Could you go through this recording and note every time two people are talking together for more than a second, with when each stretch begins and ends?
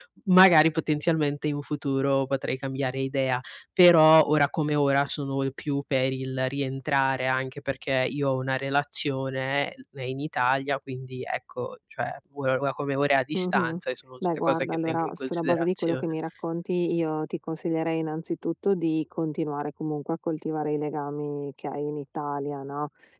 14.4-16.0

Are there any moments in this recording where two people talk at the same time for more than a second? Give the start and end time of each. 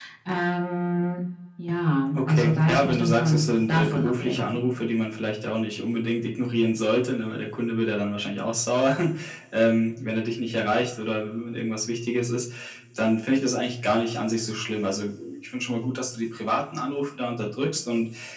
2.2-4.6

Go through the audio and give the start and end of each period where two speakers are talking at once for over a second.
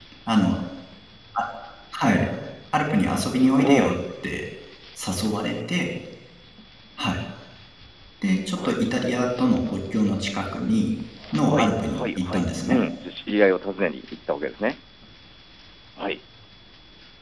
11.3-12.8

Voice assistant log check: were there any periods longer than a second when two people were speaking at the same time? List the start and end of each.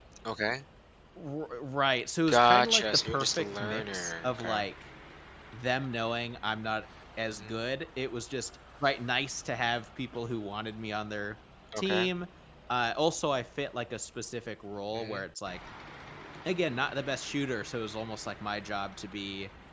2.3-4.6

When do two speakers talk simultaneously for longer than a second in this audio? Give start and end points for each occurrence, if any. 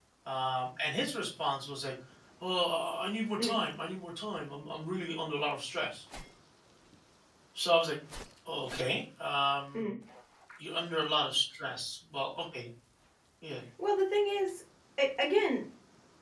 none

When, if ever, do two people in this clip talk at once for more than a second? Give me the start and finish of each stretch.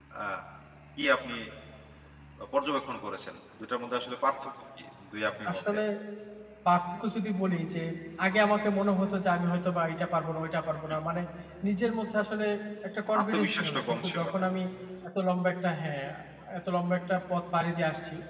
13.2-14.5

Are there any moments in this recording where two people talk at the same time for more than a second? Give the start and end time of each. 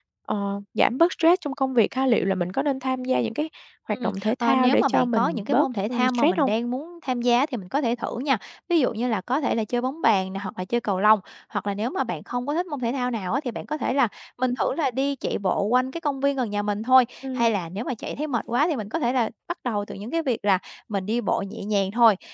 4.0-6.5

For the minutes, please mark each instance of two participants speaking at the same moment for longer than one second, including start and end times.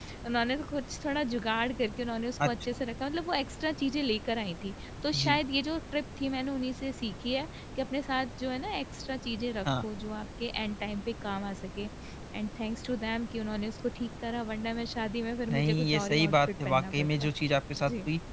15.5-17.3

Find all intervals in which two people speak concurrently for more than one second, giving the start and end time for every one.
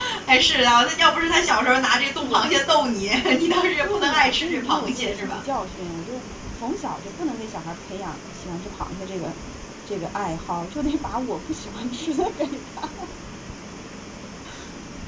3.8-5.4

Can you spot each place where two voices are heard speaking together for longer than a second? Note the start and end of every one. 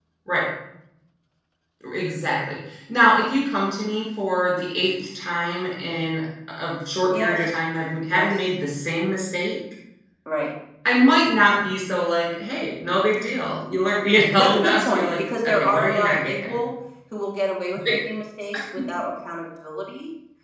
14.3-16.6

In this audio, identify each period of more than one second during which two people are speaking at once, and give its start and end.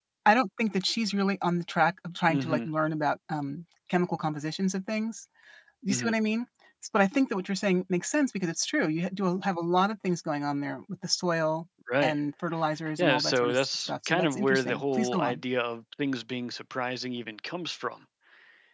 13.0-15.4

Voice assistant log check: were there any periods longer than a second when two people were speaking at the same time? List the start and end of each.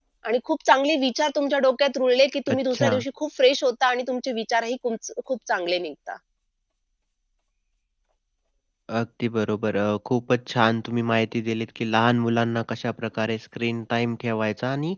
none

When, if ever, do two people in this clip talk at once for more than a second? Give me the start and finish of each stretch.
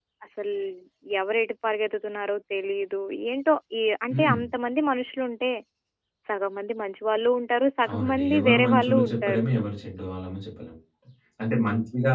7.9-9.4

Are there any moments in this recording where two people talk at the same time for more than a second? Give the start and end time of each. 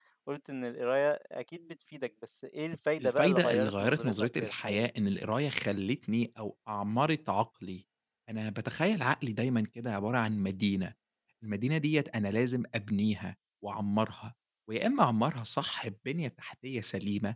3.0-4.9

